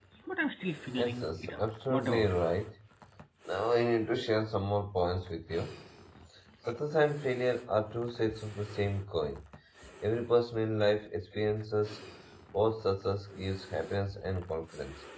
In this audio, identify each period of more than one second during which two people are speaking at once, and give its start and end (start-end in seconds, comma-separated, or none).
1.0-2.5